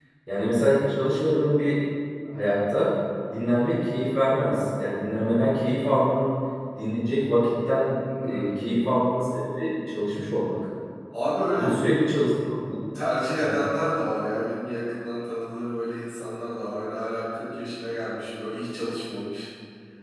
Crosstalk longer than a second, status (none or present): none